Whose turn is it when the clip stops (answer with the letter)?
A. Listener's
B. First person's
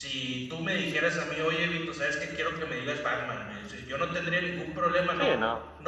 B